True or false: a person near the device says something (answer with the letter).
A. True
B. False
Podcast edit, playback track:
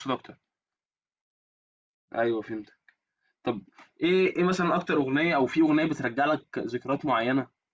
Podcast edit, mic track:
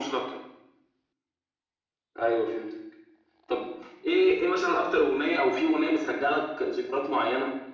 B